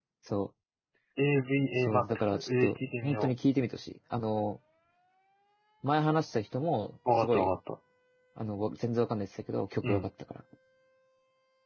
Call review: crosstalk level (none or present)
present